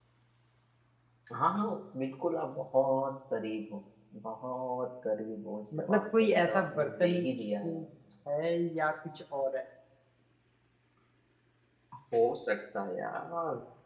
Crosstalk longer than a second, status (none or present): present